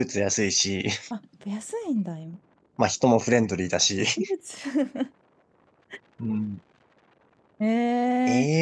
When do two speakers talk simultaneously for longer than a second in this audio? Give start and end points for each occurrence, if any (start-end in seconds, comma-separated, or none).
none